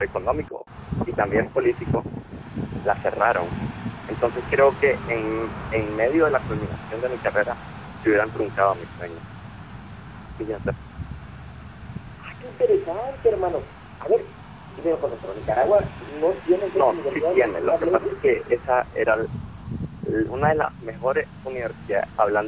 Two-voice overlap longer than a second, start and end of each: 16.7-18.1

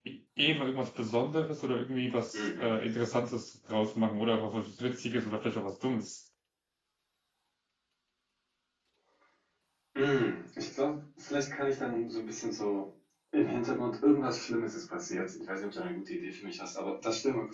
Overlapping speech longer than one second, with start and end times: none

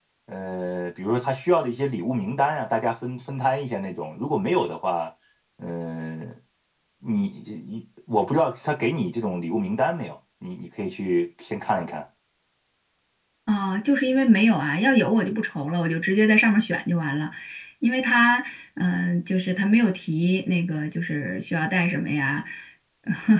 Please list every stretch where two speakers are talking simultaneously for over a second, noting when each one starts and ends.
none

